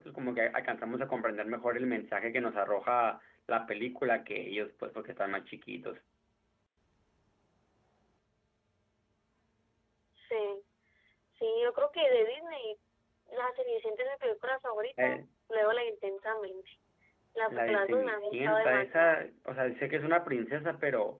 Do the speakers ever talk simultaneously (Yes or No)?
Yes